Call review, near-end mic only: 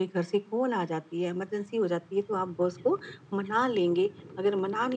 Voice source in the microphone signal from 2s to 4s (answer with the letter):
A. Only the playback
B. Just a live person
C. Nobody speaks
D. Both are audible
A